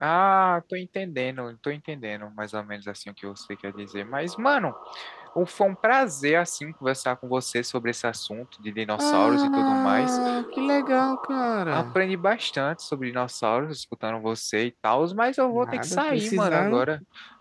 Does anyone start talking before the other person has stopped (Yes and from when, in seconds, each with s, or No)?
Yes, from 9.0 s